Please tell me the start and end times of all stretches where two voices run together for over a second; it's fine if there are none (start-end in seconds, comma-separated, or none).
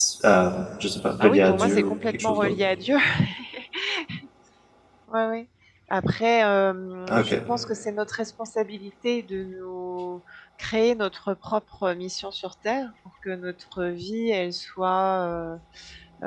1.2-2.6